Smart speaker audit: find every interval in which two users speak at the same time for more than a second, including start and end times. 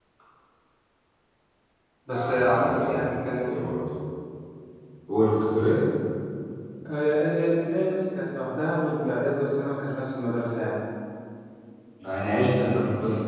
2.1-3.5

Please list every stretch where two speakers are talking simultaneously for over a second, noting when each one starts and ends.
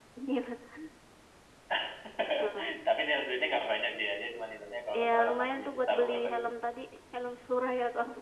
4.9-6.4

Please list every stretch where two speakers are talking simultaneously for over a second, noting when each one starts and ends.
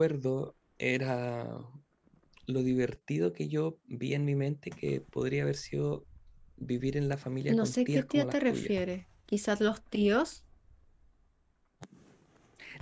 7.5-8.7

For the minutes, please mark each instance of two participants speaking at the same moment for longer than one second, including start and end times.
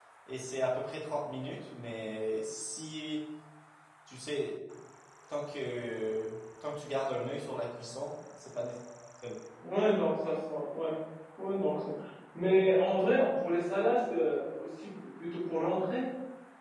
none

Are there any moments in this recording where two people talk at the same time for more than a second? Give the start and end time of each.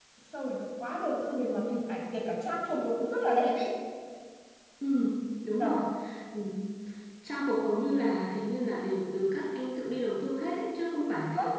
none

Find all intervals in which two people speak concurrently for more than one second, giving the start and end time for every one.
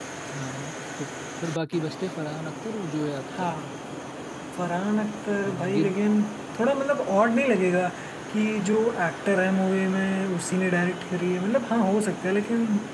none

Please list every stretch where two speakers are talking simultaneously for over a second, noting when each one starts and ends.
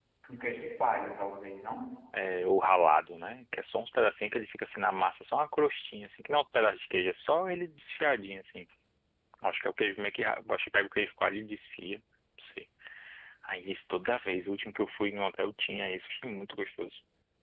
none

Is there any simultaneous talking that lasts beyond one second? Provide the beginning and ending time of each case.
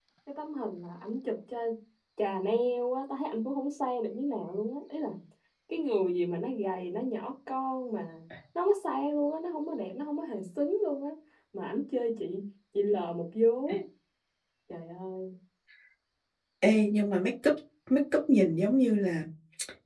none

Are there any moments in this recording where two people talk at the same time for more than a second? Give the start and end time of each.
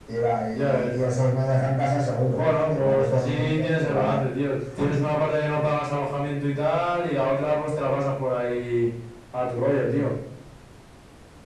2.4-4.2

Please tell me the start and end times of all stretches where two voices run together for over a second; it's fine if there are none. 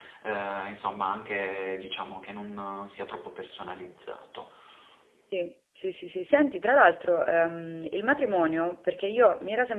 none

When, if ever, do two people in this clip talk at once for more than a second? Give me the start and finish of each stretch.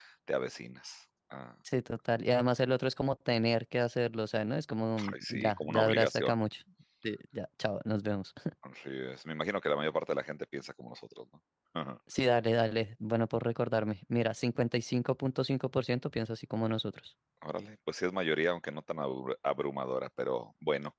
5.1-6.3

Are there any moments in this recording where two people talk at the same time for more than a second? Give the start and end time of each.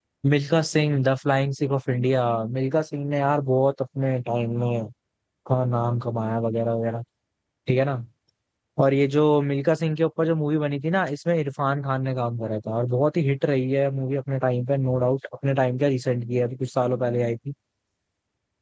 none

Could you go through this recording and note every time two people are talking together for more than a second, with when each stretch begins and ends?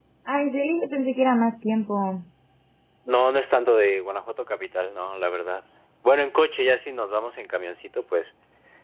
none

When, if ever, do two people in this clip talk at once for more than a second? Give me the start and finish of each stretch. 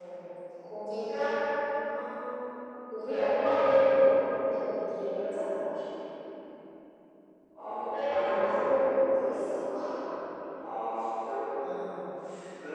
7.7-8.9

